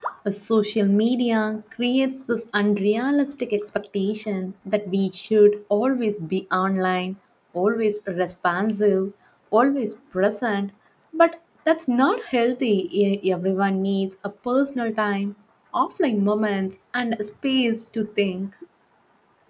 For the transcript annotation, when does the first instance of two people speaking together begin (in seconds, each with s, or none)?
none